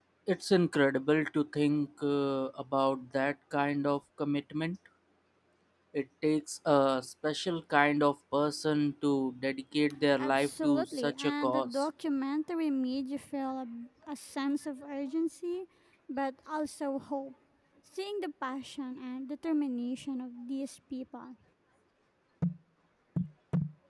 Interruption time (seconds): 10.2 s

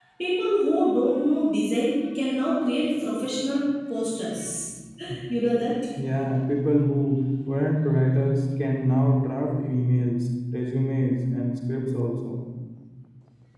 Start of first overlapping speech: none

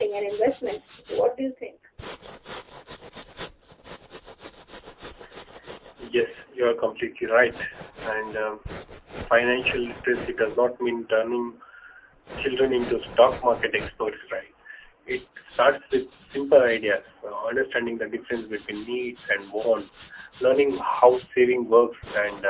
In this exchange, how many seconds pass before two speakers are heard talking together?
none

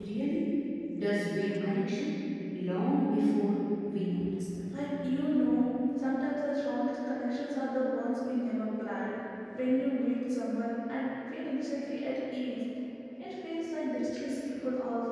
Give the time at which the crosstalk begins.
none

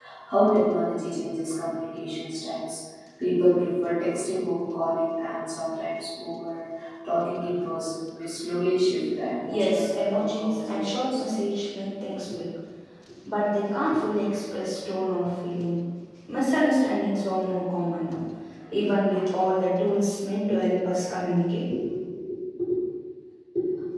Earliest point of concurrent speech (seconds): 9.4 s

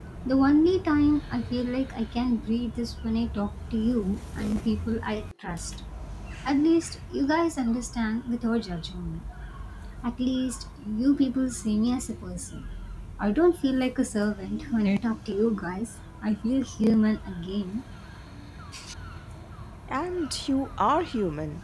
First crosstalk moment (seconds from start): none

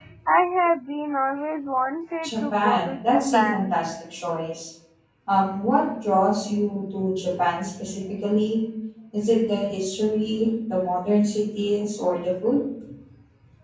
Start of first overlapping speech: 2.2 s

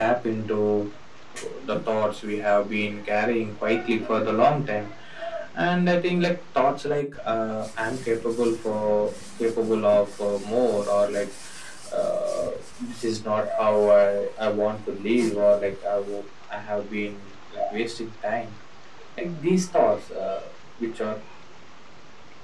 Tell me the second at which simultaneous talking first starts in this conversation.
none

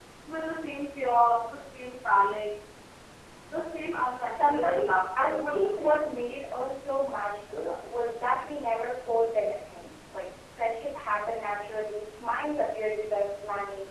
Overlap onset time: 4.3 s

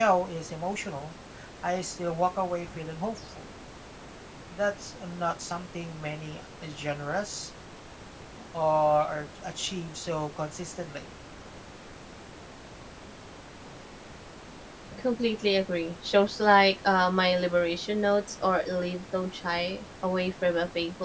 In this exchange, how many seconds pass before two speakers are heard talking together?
none

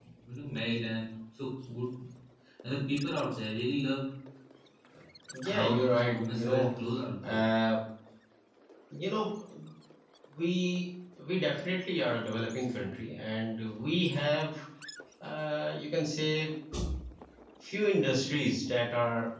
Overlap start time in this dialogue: 5.5 s

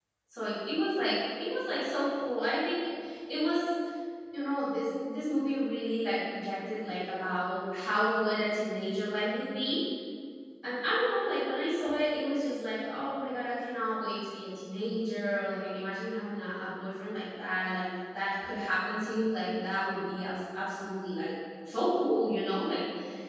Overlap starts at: none

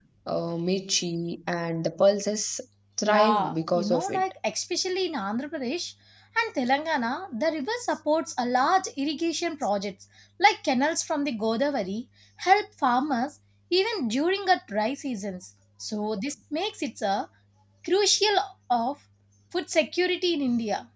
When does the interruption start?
3.0 s

